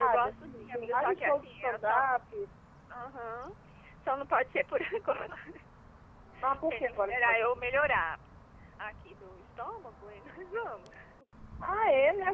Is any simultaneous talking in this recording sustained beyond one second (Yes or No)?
Yes